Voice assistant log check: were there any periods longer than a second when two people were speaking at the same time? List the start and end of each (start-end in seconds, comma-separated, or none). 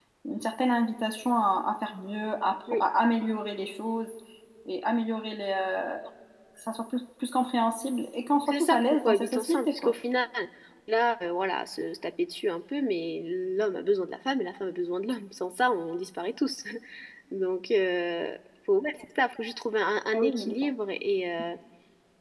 8.5-9.9